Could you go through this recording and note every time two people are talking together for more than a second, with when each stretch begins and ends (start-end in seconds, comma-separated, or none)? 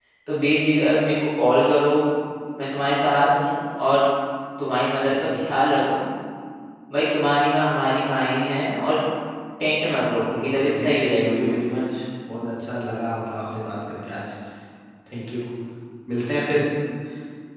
10.3-11.6